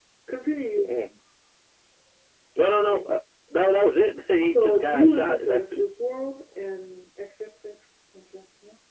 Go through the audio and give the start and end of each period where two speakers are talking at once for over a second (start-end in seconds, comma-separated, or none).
4.4-5.8